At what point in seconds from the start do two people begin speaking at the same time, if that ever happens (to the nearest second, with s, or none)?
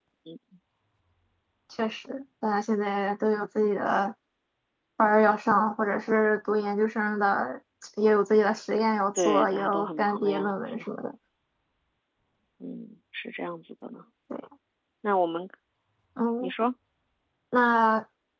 9 s